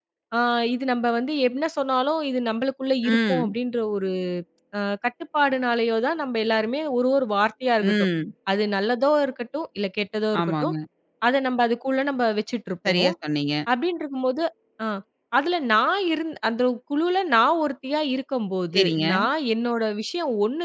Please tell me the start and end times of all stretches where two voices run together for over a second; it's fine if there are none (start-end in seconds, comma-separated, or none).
none